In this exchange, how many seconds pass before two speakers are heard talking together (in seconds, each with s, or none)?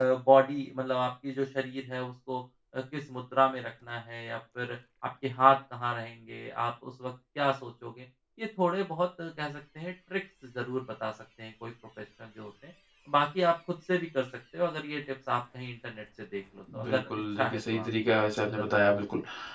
16.8 s